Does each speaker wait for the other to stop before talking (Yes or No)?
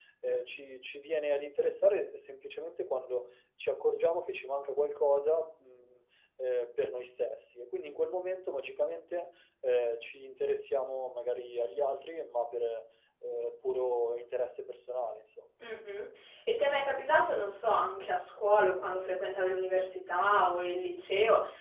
Yes